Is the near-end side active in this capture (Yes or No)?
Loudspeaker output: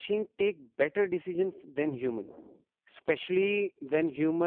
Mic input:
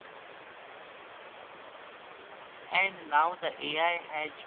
Yes